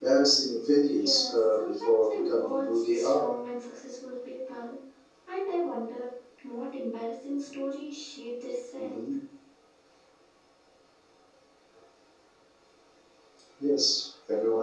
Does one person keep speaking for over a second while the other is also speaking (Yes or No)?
Yes